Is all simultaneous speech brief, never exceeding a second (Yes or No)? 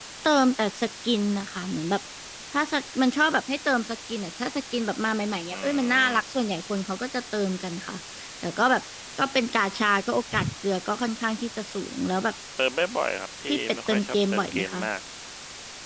No